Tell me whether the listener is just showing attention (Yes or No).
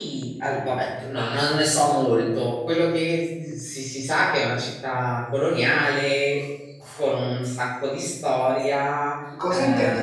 No